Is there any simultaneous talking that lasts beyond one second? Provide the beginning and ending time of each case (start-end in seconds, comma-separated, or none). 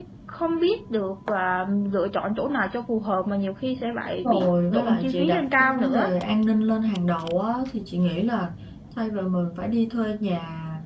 4.2-6.1